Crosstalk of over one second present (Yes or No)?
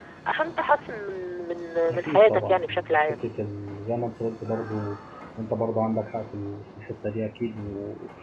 Yes